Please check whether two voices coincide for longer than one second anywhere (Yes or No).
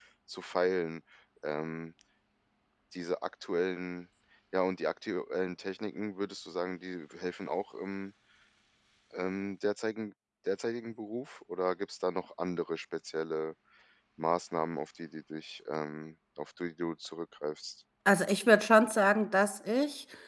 No